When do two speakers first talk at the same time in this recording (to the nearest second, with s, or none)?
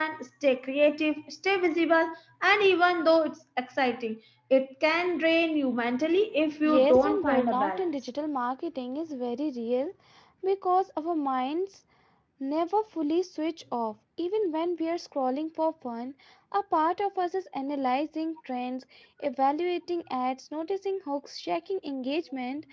7 s